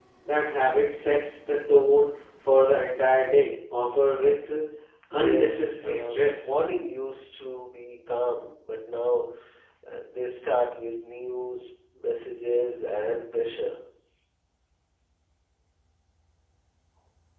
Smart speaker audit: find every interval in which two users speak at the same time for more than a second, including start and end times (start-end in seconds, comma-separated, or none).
5.2-6.6